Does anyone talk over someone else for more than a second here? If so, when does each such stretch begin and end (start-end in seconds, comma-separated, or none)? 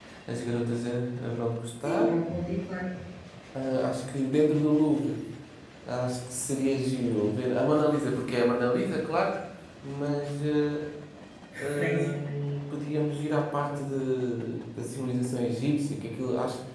none